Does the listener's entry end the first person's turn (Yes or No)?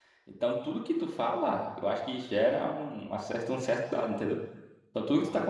No